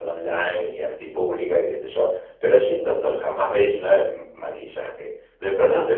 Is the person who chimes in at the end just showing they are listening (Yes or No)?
Yes